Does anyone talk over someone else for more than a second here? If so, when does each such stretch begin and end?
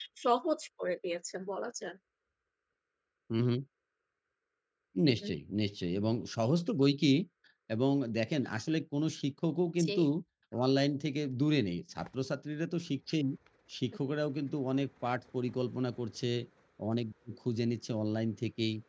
none

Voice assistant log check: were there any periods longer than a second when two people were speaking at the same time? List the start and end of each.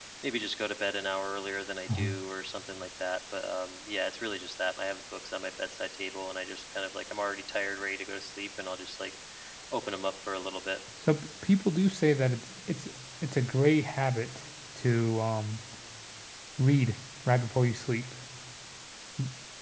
none

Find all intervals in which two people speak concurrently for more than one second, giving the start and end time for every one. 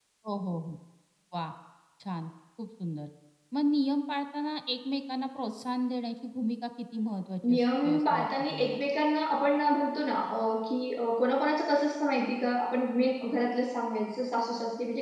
7.5-8.8

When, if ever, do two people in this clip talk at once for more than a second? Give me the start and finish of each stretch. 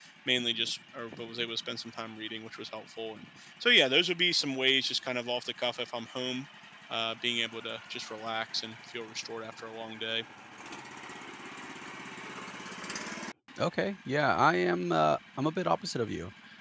none

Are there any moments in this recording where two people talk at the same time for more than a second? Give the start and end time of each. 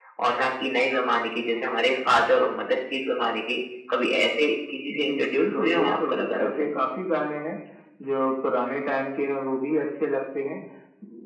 4.9-6.7

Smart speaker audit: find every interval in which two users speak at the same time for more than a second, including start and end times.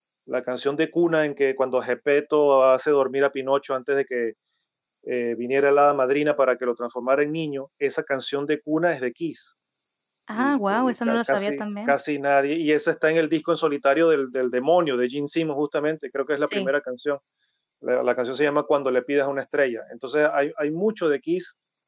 10.3-12.0

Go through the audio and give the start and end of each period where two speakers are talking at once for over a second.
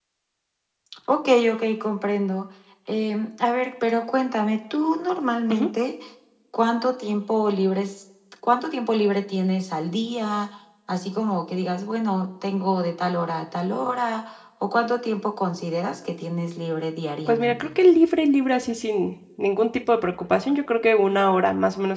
none

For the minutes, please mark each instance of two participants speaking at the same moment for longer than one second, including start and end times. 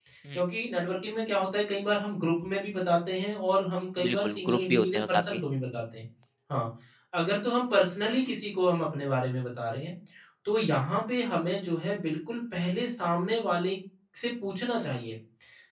4.0-5.4

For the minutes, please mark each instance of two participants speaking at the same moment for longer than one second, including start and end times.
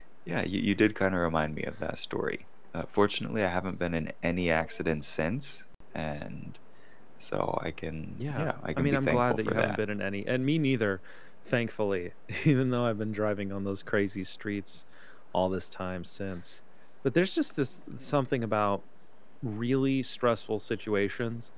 8.2-9.8

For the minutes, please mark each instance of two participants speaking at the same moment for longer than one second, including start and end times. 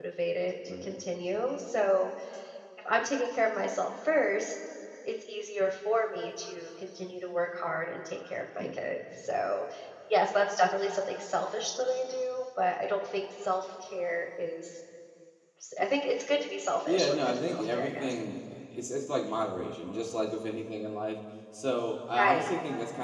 16.9-18.1

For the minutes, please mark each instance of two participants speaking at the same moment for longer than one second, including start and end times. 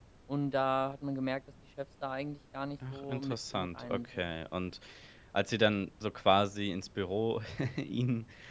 2.9-4.3

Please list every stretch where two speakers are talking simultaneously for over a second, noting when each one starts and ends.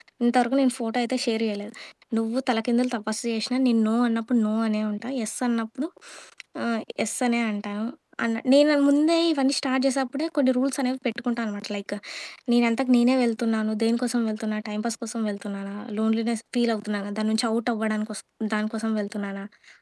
none

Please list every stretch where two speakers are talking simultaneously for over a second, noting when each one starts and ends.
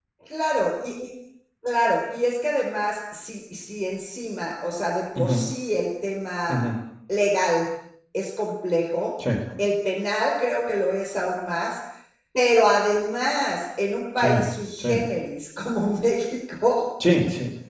none

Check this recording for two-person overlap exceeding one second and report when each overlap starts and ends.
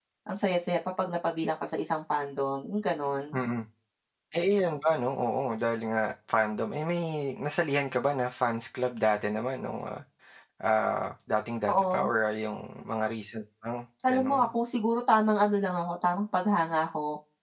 none

